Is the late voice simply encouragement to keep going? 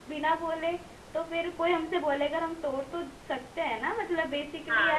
No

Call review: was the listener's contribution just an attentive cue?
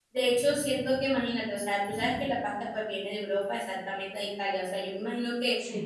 Yes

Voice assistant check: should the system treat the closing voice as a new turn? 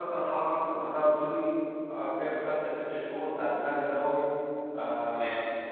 No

